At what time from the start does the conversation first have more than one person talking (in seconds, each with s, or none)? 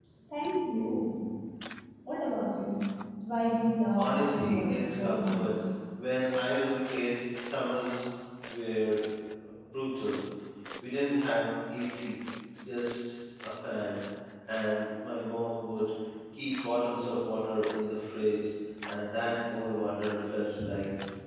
4.0 s